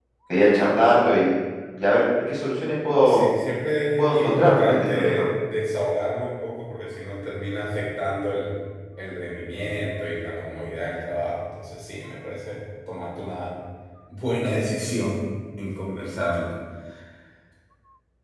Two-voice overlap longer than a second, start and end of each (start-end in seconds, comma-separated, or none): 4.0-5.3